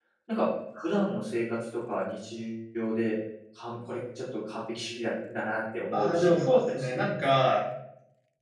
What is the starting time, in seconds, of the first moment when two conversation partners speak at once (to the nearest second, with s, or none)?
6 s